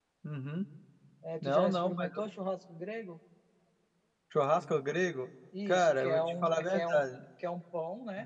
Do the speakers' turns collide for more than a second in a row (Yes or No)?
Yes